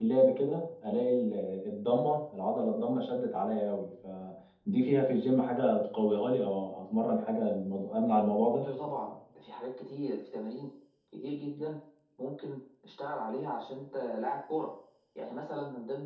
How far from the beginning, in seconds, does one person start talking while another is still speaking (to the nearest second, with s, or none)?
none